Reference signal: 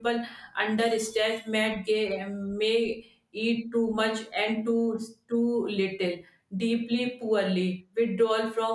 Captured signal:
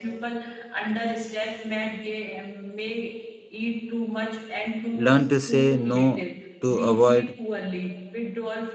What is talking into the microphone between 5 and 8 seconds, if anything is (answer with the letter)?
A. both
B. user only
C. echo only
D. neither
A